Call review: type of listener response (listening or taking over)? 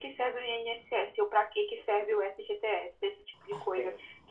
listening